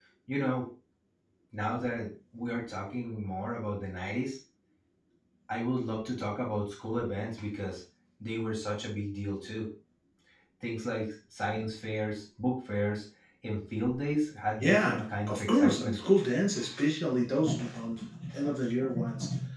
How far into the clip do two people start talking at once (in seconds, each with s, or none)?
14.6 s